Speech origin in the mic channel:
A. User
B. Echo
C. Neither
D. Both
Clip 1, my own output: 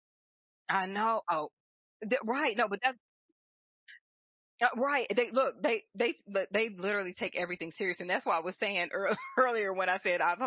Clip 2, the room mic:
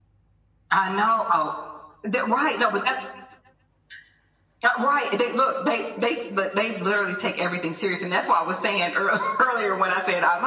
B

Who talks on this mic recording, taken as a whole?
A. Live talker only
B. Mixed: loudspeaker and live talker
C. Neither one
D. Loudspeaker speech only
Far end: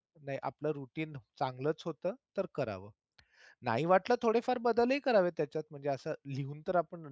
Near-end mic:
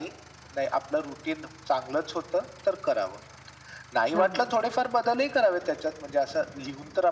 B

